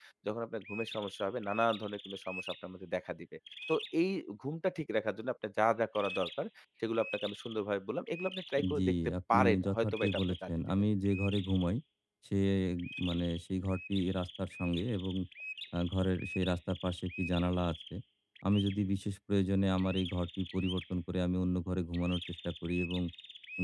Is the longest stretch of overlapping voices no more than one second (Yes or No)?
No